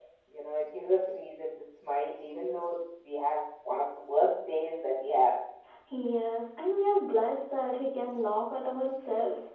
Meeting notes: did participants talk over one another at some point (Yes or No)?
No